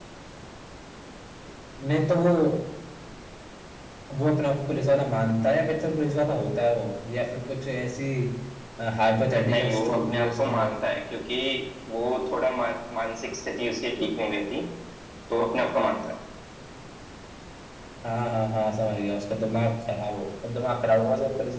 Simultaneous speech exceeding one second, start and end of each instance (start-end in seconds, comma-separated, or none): 9.4-10.8